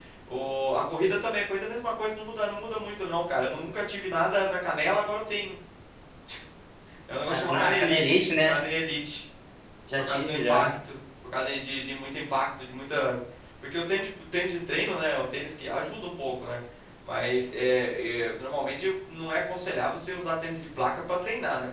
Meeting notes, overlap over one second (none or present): present